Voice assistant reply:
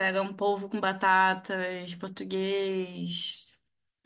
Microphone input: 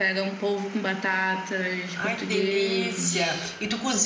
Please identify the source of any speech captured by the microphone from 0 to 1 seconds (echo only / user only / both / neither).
echo only